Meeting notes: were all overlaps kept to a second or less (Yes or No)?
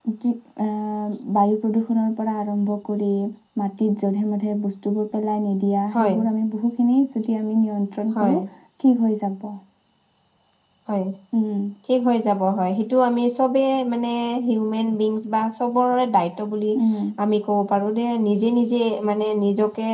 Yes